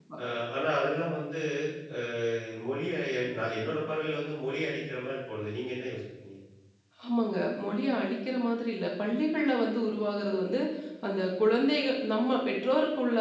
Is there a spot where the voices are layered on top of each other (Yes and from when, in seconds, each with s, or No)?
No